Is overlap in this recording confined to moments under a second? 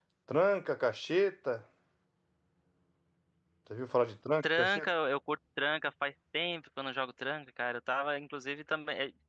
Yes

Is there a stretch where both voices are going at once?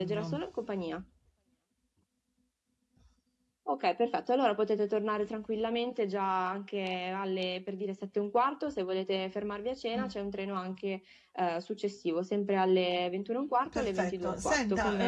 Yes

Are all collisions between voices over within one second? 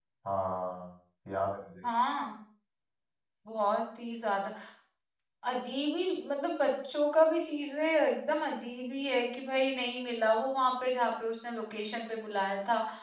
Yes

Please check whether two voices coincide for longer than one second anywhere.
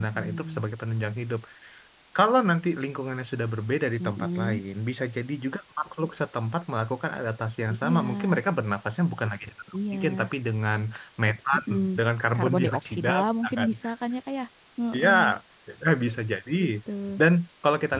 Yes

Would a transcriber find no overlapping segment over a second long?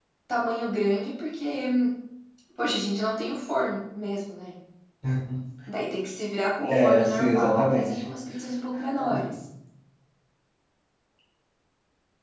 No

